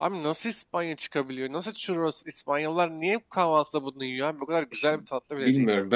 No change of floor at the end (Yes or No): No